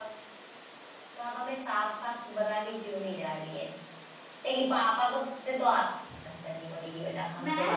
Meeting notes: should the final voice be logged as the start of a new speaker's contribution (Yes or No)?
Yes